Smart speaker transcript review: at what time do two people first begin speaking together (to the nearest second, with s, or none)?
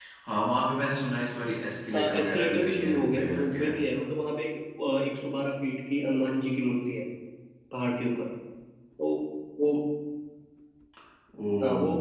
2 s